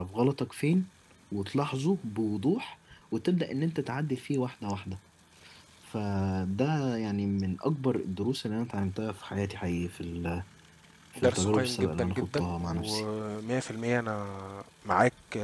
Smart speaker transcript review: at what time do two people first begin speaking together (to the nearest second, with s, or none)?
11 s